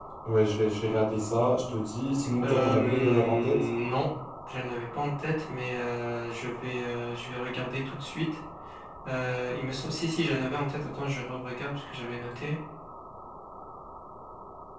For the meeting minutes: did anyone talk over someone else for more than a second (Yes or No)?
Yes